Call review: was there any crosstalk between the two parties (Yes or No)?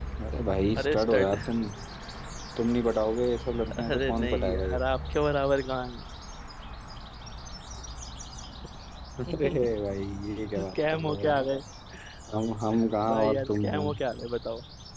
Yes